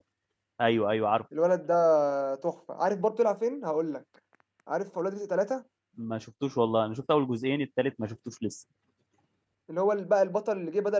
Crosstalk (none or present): none